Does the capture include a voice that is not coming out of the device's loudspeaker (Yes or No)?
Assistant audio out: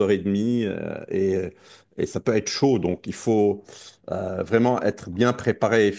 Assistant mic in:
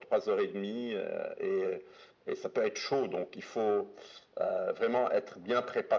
No